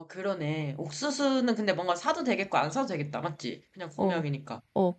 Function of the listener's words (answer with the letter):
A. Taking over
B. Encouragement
A